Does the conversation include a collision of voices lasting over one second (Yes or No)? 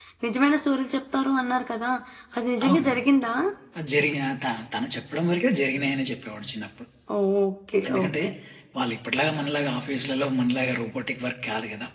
No